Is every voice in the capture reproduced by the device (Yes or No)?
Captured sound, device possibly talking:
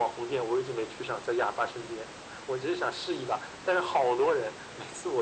Yes